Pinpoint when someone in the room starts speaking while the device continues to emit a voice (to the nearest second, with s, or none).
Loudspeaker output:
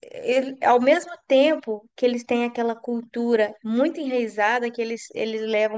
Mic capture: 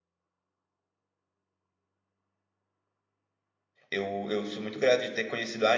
4 s